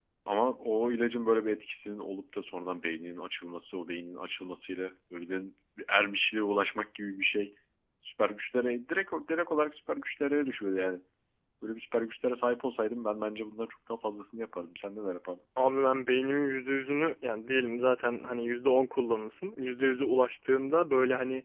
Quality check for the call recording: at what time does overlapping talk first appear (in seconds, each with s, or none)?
none